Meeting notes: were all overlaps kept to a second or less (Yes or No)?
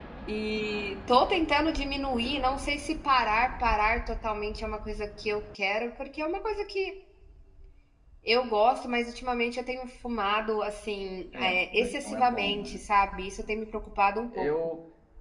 No